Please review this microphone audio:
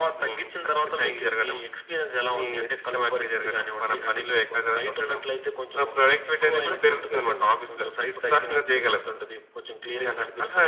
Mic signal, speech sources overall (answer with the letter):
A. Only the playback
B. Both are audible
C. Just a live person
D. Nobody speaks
A